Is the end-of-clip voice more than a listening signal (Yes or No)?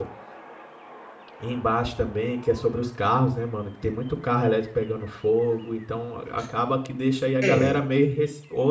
No